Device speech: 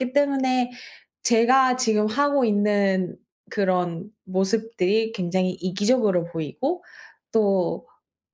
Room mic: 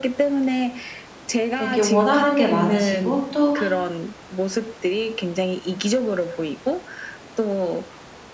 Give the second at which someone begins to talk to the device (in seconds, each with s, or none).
1.6 s